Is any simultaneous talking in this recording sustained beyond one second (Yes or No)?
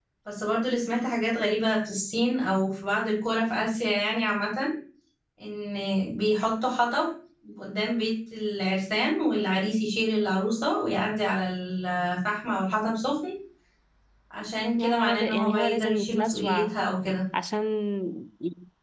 Yes